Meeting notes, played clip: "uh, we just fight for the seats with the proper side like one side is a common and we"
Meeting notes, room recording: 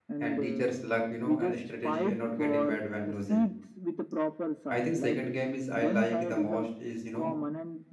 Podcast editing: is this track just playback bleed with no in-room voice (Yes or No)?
No